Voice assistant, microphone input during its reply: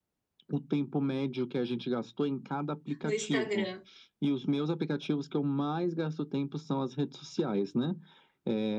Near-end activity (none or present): present